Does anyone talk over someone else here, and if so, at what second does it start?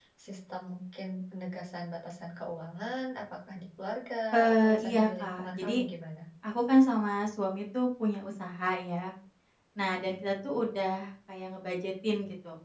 4.5 s

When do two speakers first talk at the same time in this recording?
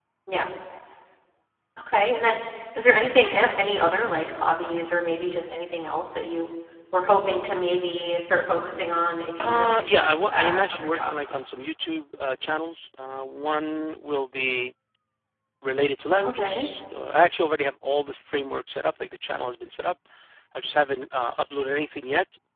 9.4 s

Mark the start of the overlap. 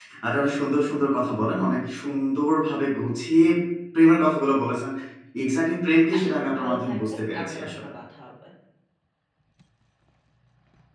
6.2 s

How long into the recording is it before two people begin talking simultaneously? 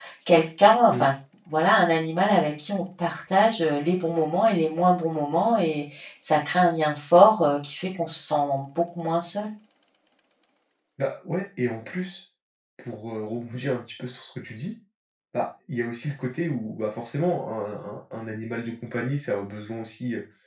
none

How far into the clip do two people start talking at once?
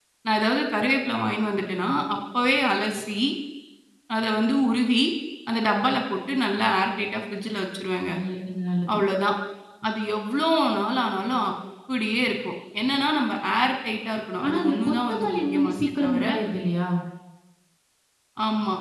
14.4 s

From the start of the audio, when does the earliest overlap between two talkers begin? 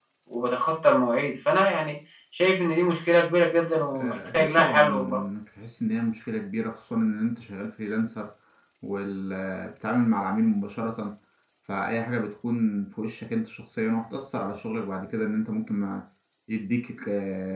3.9 s

